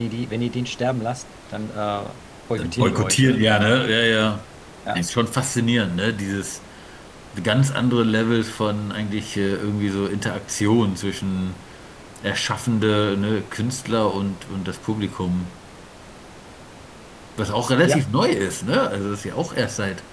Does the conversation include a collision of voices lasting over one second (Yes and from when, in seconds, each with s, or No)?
Yes, from 2.6 s